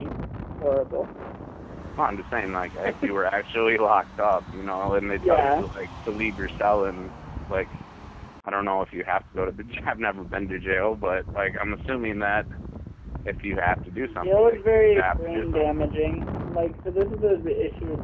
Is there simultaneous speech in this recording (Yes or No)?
Yes